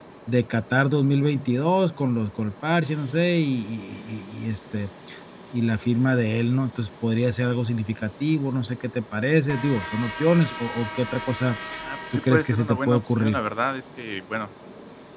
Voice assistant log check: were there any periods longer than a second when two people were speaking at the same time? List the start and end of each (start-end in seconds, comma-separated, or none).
12.1-13.4